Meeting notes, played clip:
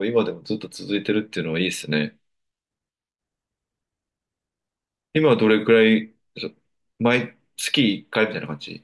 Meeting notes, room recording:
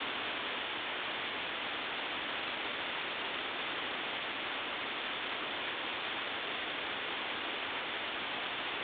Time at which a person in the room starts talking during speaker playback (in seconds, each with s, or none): none